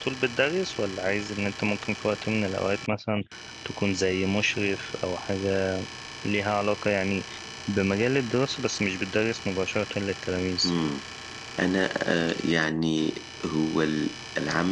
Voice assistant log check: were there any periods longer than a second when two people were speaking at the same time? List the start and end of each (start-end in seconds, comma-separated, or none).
none